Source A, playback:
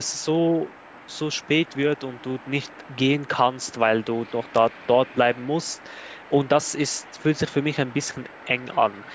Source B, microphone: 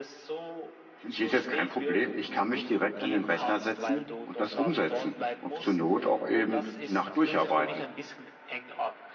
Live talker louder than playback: Yes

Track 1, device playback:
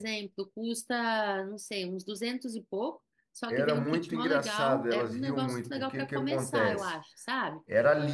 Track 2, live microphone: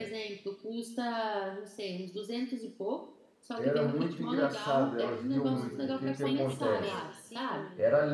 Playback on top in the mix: Yes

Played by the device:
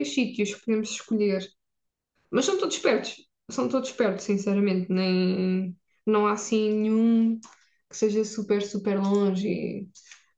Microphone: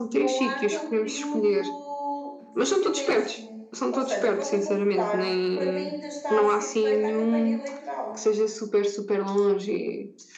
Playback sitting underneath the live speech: No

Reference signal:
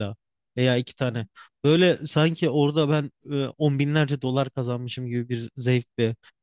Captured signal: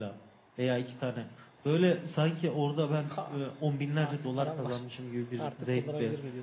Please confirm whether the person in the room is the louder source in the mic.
No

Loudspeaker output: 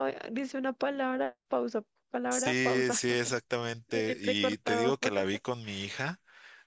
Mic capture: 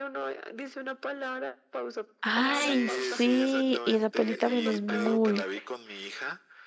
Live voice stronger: Yes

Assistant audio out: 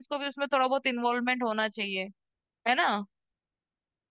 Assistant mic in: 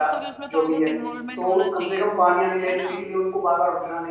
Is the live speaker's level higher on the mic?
Yes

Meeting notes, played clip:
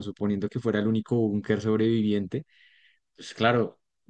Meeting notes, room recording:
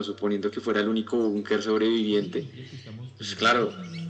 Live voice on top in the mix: No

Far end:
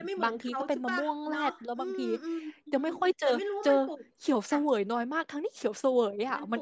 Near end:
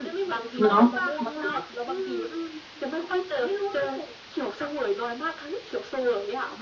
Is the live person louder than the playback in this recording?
Yes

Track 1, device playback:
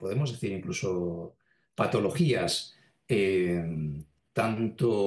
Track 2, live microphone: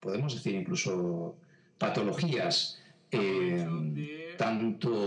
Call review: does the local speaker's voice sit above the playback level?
No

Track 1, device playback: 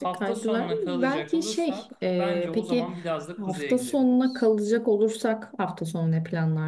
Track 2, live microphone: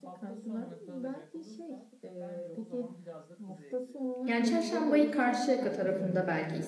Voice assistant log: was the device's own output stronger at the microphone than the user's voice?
No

